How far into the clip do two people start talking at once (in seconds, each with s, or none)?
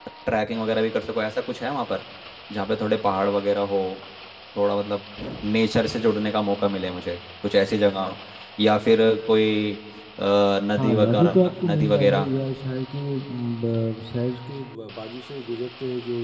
10.8 s